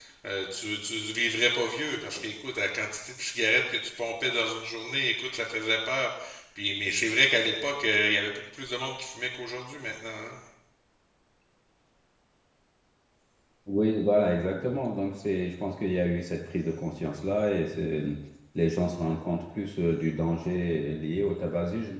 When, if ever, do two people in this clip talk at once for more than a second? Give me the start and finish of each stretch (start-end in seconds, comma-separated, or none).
none